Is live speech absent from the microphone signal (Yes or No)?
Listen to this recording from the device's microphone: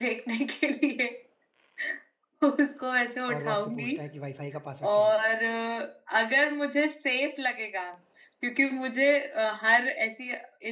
No